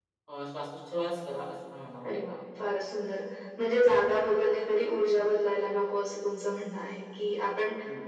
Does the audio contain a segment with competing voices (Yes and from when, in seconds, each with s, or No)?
No